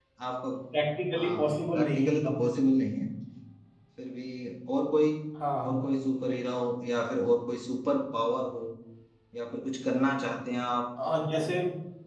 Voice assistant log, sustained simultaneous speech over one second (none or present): present